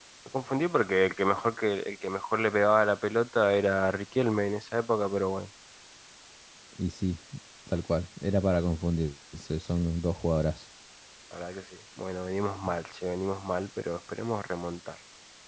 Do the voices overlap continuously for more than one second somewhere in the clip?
No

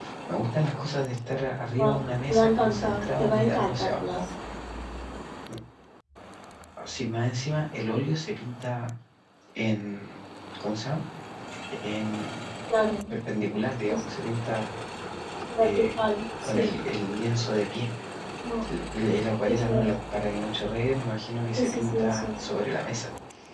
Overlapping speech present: Yes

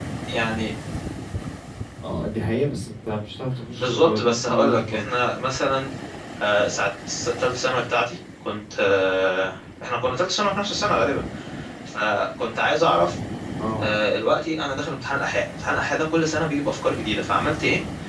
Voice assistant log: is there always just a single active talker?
No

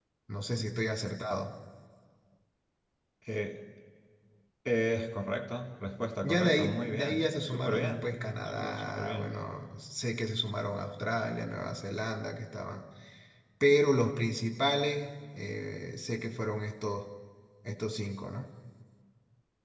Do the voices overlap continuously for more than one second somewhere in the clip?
Yes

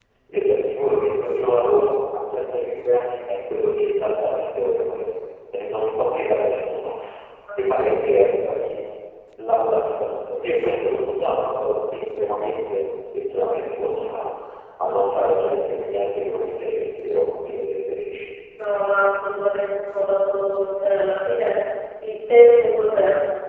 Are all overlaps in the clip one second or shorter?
Yes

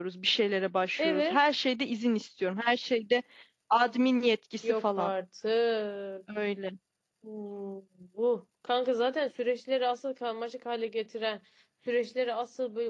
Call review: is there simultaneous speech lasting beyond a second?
No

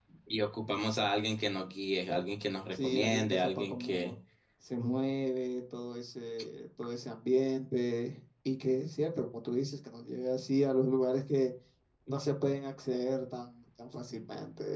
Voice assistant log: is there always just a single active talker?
No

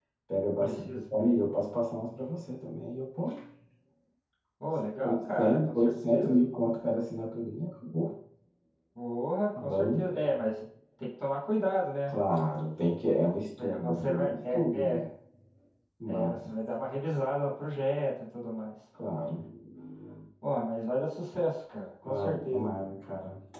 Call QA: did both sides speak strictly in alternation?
No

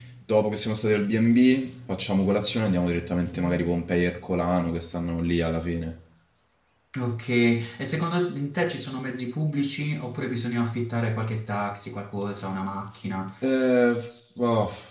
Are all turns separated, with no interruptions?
Yes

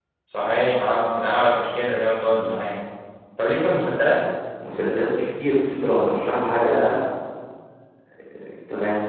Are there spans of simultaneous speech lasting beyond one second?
No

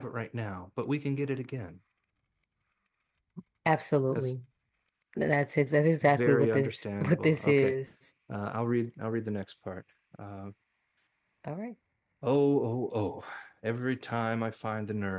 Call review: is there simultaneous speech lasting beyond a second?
Yes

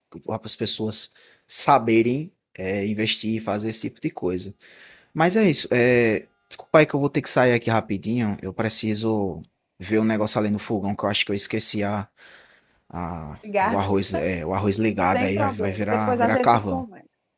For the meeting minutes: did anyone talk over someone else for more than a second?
Yes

